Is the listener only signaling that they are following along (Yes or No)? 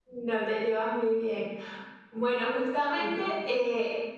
Yes